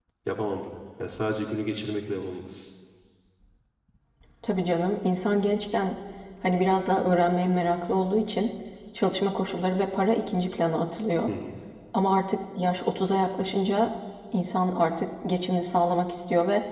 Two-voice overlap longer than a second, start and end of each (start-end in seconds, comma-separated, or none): none